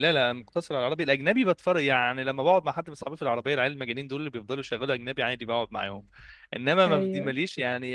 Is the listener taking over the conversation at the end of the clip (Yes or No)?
No